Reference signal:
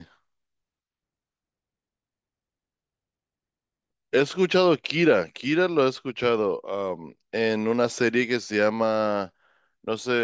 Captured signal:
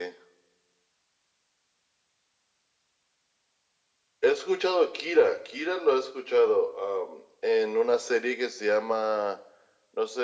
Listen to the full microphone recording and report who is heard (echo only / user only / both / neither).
echo only